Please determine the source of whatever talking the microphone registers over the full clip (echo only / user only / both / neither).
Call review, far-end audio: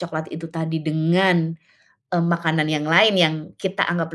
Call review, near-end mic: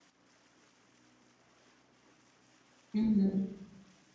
user only